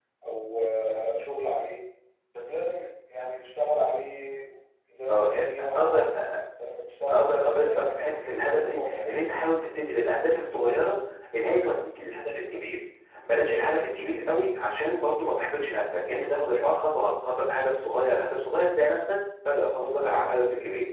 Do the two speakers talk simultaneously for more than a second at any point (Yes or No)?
Yes